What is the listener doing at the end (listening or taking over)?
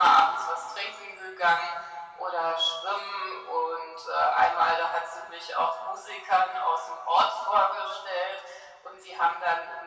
listening